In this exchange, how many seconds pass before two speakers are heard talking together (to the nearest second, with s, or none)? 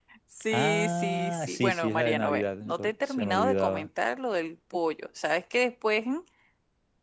1 s